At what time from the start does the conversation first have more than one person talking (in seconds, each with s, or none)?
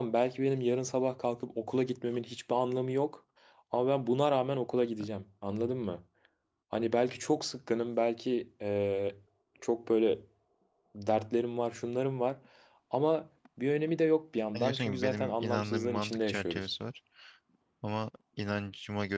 14.5 s